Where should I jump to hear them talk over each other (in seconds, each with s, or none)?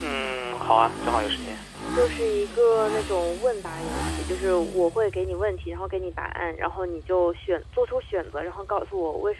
none